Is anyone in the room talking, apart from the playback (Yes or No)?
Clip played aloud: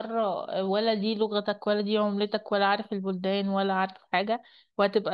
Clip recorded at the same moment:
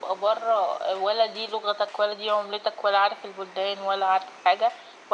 No